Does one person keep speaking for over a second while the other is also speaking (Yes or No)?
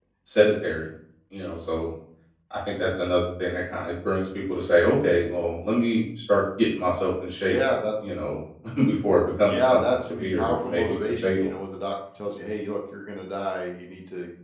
Yes